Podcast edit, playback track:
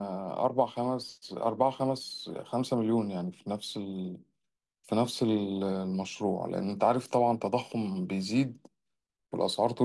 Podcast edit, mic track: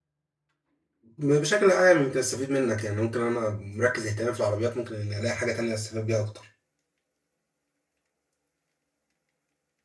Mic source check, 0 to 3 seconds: user only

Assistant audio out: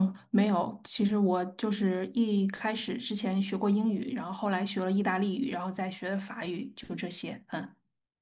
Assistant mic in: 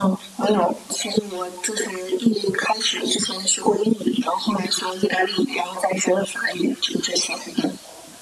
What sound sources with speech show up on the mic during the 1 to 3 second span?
echo only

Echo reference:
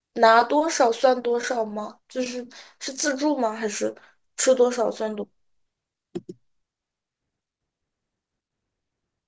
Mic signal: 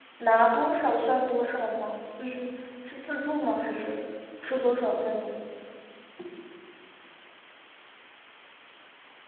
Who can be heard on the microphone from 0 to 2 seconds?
echo only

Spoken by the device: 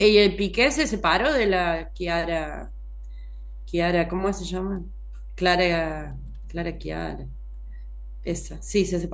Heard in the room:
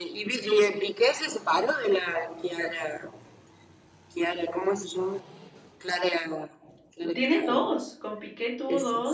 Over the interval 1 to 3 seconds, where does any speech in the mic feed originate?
echo only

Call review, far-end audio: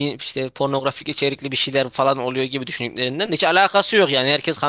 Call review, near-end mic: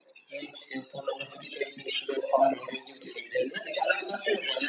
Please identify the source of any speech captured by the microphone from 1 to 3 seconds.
echo only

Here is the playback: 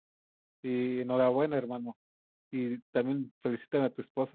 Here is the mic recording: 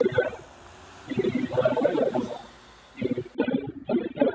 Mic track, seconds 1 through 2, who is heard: both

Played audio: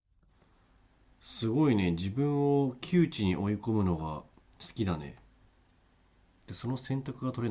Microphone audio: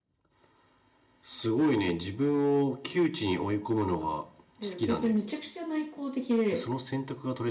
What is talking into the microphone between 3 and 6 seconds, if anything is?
both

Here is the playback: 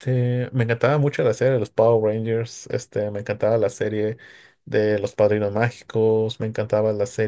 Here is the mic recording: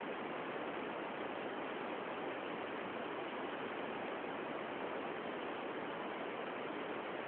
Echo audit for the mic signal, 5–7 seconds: neither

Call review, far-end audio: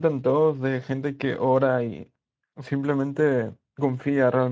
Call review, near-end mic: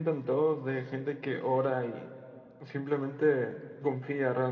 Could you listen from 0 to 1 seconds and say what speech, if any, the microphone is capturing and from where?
echo only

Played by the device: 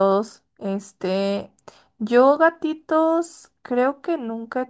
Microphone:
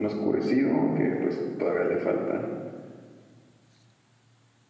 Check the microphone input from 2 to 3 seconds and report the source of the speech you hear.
user only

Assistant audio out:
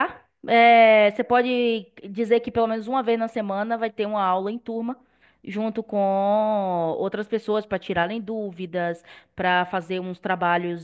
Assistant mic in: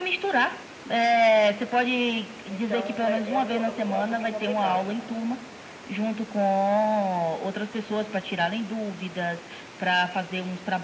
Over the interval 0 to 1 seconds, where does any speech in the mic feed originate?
echo only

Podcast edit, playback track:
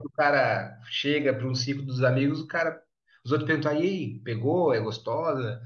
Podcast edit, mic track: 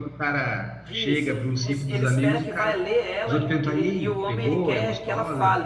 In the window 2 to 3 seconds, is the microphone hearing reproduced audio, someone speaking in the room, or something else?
both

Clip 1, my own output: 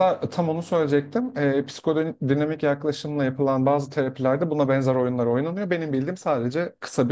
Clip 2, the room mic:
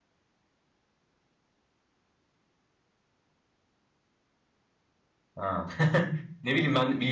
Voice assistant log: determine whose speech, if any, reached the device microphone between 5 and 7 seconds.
user only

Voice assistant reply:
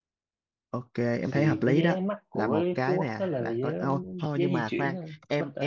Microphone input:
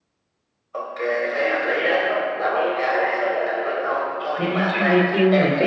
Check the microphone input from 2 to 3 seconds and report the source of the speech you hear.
echo only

